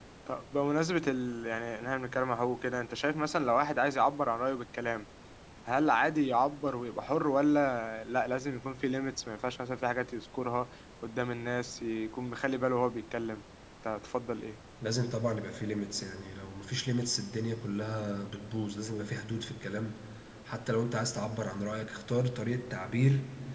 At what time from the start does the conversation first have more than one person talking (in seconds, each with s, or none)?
none